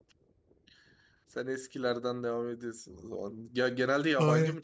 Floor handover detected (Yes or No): Yes